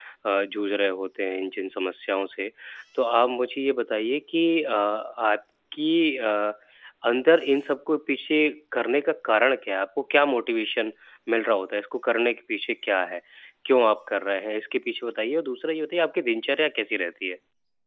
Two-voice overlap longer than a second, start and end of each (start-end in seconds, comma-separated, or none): none